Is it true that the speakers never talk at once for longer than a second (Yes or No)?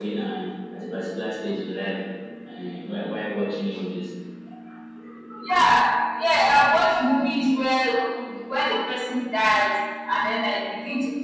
Yes